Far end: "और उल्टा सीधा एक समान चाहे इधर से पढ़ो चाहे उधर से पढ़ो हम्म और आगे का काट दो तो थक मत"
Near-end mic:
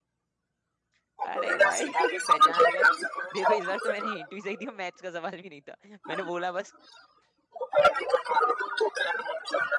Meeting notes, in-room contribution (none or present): present